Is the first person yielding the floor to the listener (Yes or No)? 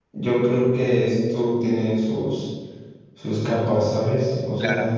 Yes